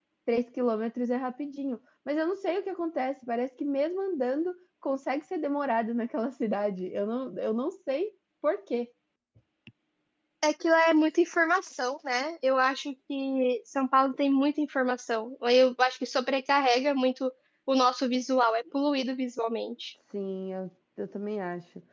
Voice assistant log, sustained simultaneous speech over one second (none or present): none